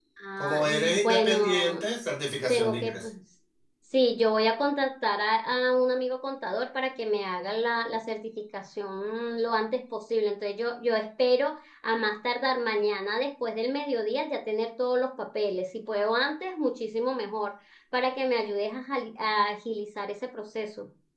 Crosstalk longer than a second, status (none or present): present